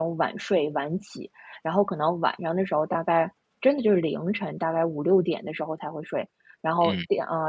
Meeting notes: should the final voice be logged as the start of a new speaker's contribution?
No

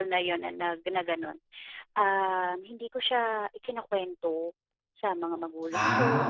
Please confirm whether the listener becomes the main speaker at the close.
No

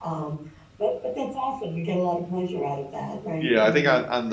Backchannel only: No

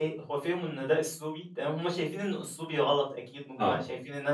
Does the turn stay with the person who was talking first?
Yes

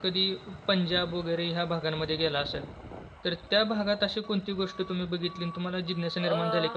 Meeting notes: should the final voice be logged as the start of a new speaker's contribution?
No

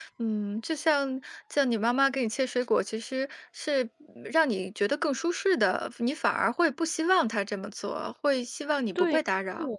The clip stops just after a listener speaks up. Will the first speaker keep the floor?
No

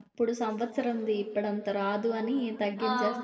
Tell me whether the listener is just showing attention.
No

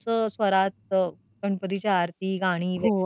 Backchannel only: No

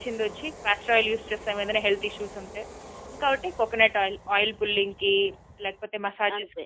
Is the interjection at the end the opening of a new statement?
Yes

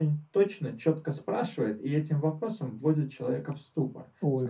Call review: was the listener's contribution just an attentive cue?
Yes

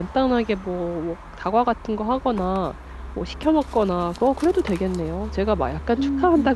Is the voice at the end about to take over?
No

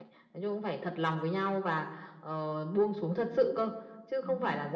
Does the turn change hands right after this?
No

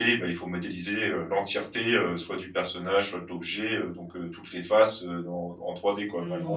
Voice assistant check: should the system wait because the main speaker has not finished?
No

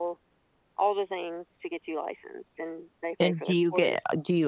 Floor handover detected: Yes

